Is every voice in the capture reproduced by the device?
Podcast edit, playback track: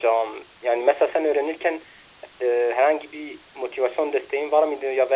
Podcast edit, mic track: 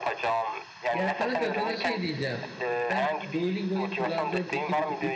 No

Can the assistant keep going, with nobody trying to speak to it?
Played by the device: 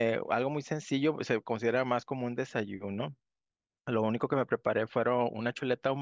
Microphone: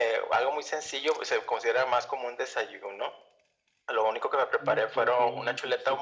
No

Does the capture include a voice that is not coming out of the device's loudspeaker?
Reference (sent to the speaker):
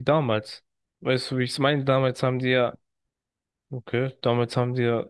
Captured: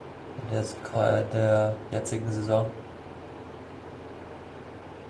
Yes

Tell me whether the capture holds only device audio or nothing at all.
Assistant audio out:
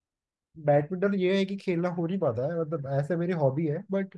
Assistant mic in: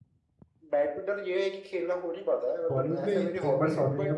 No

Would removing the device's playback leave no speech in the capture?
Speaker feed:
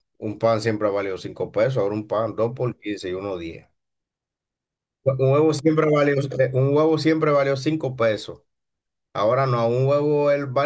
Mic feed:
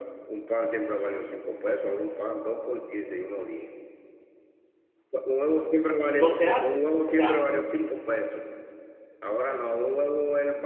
No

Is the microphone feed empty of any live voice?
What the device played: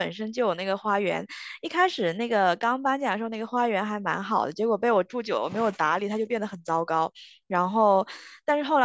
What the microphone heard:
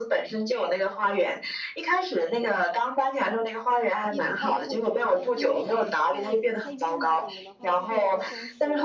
No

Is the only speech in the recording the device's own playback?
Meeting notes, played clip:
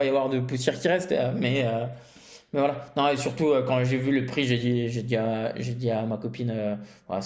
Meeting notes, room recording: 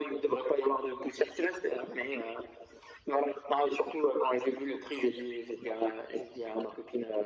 Yes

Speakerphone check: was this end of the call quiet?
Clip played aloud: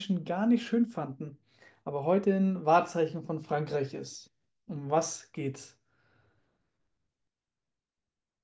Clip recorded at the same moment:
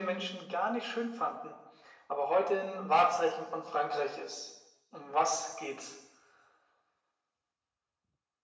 Yes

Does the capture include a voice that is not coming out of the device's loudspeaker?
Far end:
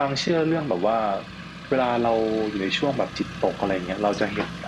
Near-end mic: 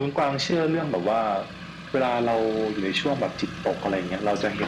No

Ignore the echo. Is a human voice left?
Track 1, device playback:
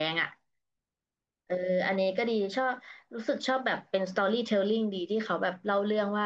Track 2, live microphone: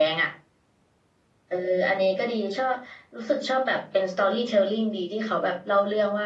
No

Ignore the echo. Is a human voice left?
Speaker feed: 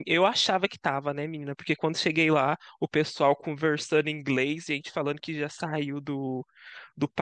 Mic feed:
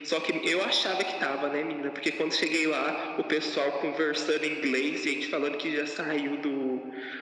No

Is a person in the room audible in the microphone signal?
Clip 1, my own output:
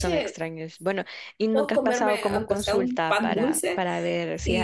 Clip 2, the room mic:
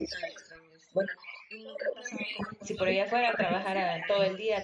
Yes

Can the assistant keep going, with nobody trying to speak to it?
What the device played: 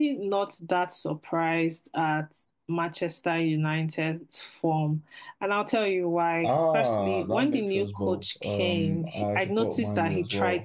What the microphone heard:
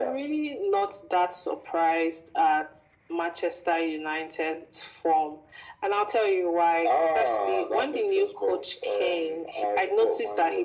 Yes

